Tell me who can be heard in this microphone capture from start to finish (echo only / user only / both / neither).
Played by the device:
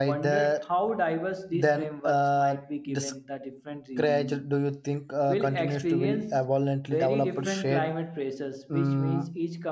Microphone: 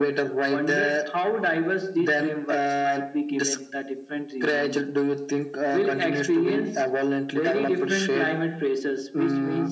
echo only